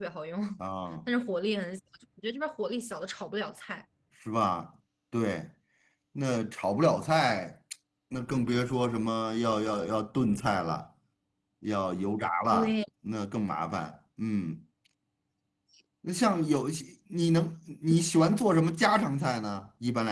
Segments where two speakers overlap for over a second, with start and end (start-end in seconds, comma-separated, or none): none